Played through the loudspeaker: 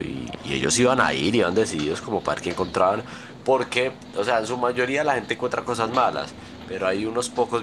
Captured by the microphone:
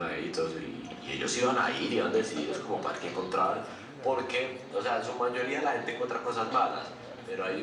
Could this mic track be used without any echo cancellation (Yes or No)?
No